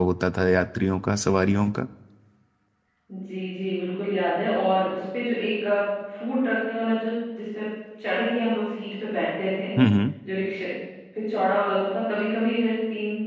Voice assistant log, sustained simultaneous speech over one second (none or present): none